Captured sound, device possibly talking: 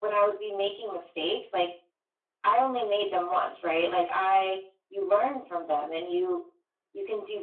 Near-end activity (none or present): none